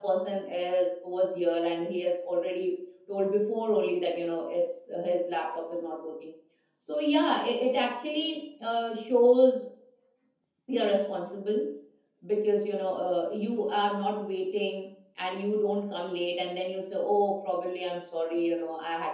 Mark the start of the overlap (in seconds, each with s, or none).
none